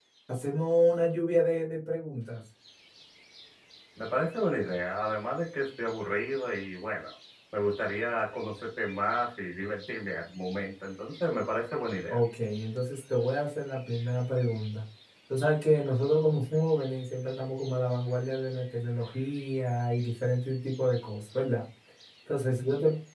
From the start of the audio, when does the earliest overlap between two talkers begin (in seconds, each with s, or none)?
none